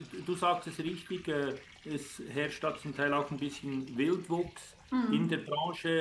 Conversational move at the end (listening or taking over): listening